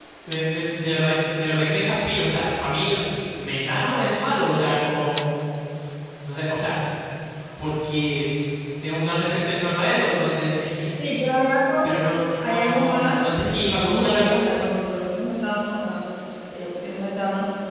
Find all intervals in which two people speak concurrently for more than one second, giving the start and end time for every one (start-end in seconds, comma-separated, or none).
12.4-14.4